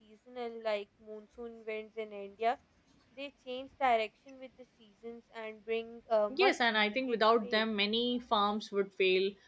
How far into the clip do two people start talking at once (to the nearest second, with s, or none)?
6 s